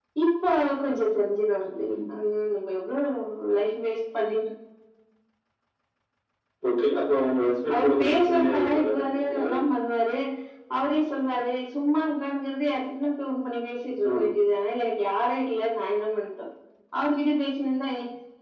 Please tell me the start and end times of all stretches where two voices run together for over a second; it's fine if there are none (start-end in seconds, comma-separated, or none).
7.7-9.5